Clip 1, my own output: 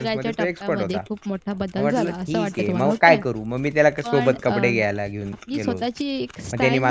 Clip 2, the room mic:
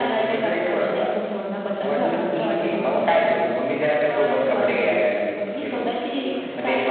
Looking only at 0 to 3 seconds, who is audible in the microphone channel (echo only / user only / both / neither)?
echo only